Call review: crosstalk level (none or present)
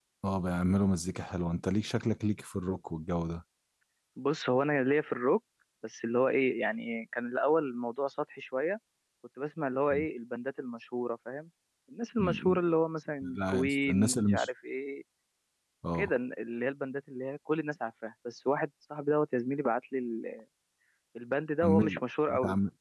present